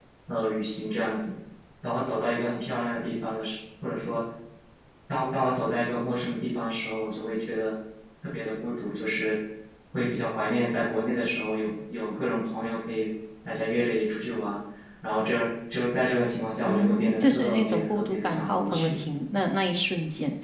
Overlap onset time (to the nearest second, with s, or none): 17 s